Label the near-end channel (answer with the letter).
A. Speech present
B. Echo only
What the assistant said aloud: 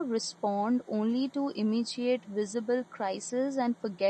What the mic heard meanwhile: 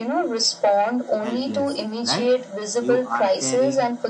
A